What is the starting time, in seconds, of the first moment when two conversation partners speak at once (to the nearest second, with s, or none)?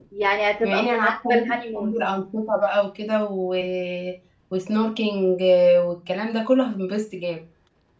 1 s